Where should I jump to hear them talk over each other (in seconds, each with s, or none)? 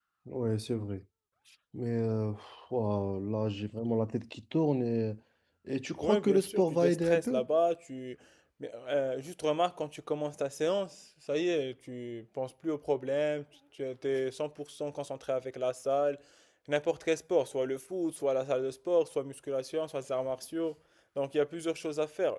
6.0 s